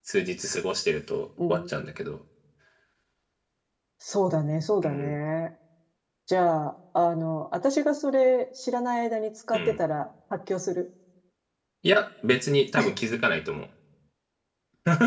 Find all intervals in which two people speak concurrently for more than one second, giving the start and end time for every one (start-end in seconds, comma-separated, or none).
none